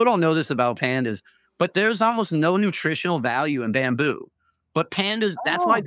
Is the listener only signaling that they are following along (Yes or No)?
Yes